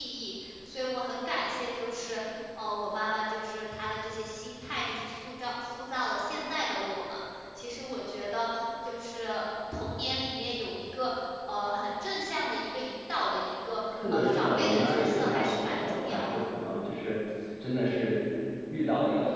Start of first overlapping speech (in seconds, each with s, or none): 13.9 s